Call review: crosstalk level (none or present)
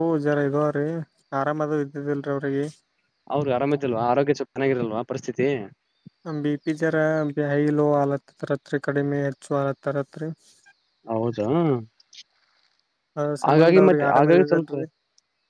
present